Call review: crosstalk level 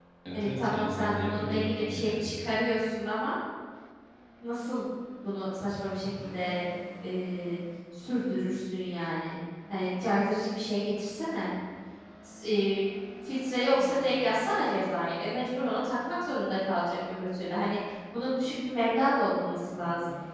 present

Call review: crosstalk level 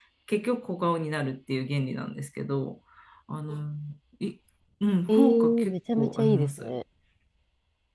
present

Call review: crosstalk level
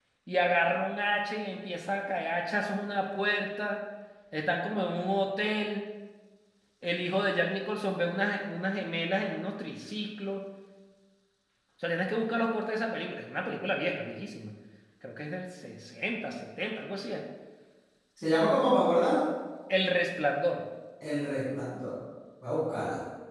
none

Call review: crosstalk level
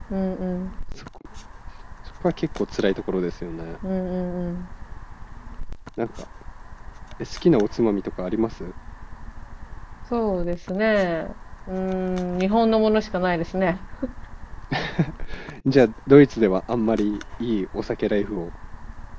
none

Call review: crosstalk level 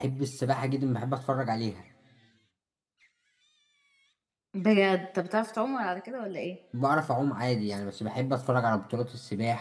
none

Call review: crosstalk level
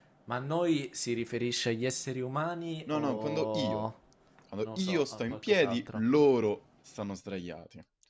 present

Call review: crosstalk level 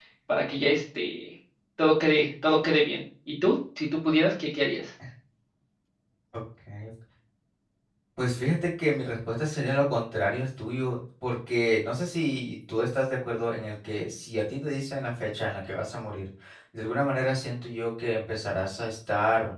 none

